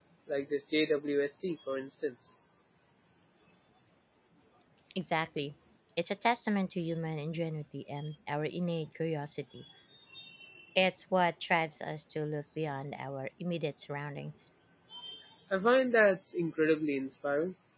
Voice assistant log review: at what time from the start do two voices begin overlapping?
none

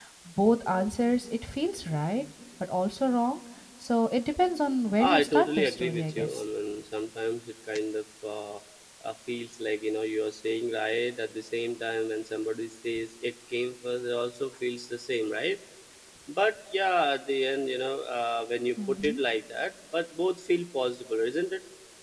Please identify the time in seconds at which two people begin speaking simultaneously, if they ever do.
5 s

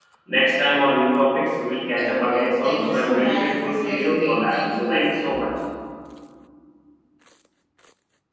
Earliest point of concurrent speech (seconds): 2 s

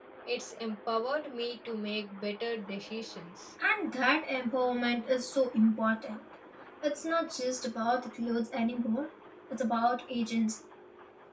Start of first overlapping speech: none

